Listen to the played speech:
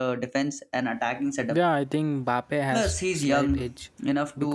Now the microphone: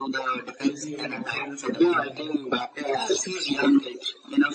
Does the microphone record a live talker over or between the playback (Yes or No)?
Yes